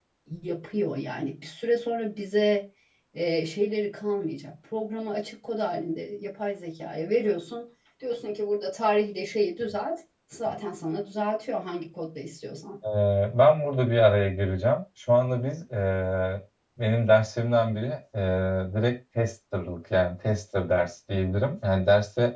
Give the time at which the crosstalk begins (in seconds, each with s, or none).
none